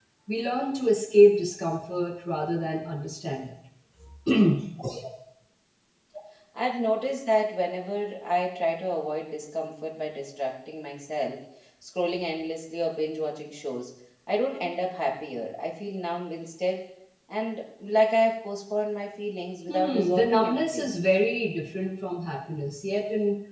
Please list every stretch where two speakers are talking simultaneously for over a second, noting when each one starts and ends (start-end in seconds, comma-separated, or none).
19.7-20.9